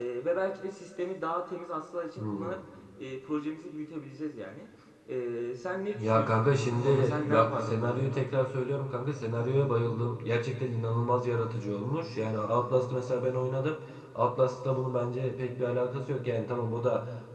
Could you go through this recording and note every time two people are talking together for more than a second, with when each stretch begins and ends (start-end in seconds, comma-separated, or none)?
6.0-8.2